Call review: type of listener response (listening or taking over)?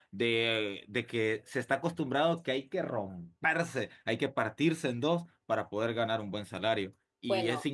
listening